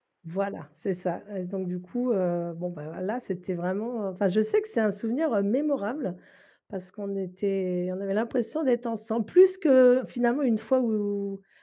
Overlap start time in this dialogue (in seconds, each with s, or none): none